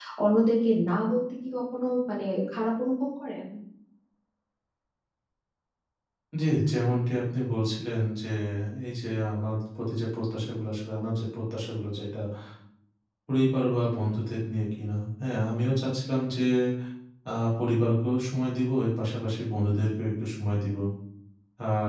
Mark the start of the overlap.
none

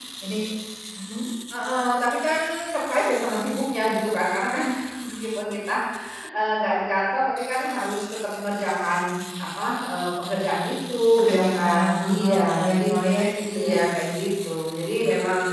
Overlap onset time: 11 s

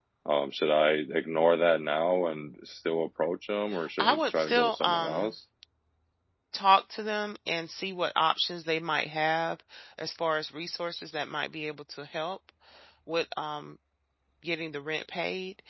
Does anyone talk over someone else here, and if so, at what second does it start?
4 s

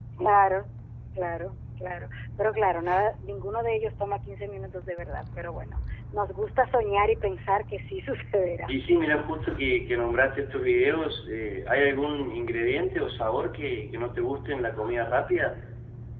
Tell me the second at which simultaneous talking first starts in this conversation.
none

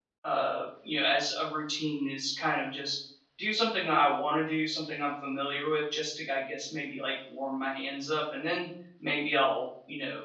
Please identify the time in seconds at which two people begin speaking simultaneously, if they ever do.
none

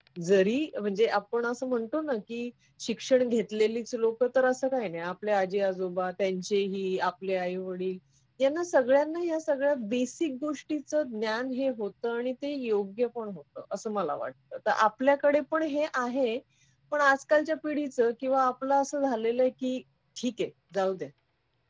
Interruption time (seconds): none

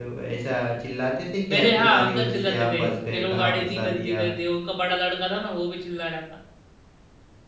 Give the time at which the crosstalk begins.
1 s

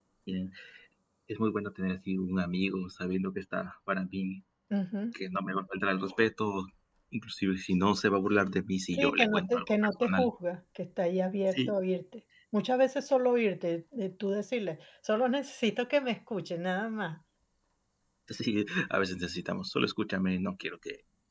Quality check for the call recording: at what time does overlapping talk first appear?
9 s

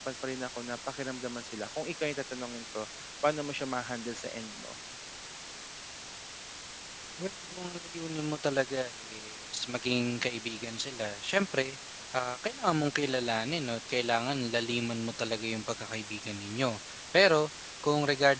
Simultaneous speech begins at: none

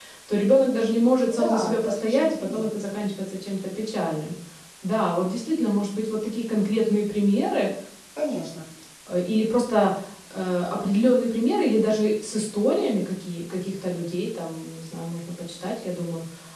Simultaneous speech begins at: 1 s

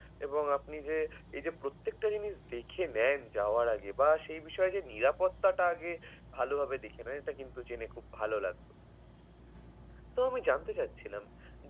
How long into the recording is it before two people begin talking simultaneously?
none

